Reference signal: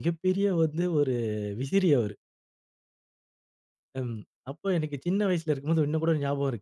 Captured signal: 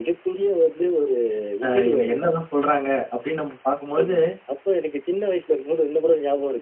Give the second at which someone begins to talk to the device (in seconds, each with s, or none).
1.6 s